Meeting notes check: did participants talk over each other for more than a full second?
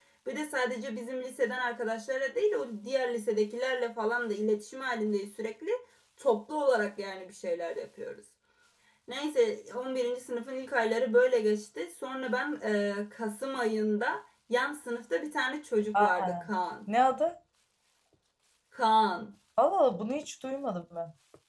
No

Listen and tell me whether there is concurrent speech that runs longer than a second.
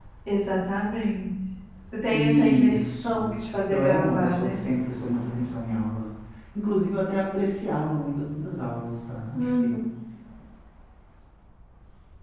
Yes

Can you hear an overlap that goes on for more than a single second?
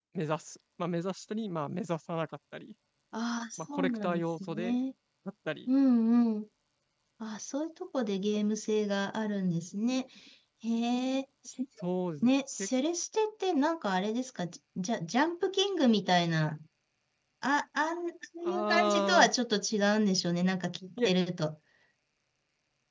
Yes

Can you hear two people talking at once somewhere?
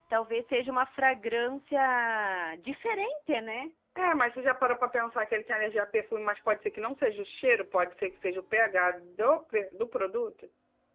No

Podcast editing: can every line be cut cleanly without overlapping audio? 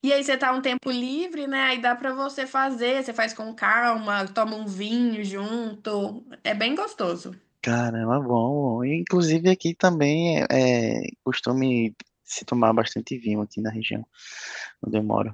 Yes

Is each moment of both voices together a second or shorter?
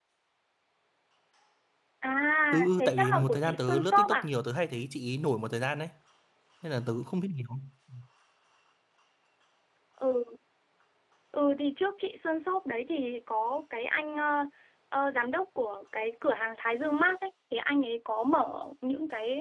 No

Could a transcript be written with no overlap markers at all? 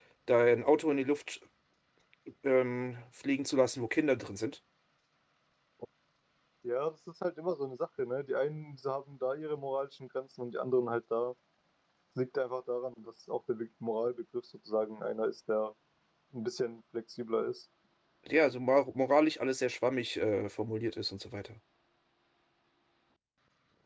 Yes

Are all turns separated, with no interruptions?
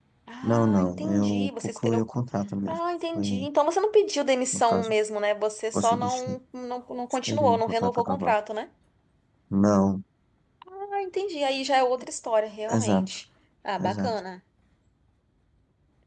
No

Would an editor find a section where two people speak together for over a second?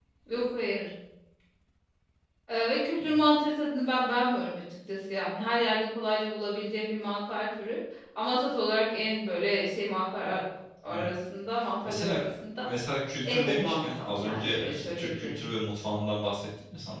Yes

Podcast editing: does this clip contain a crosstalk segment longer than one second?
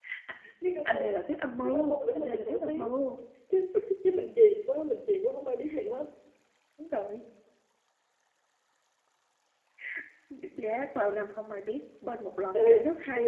Yes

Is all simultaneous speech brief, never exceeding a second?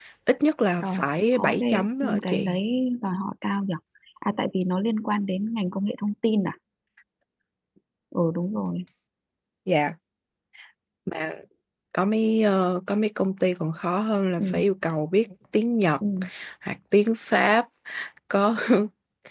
No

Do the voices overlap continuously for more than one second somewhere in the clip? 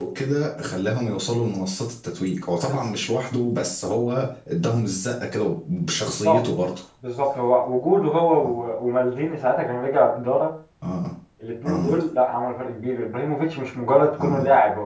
No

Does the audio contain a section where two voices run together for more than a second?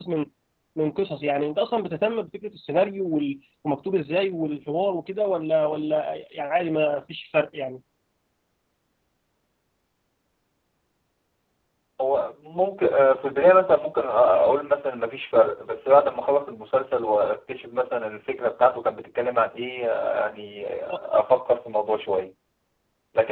No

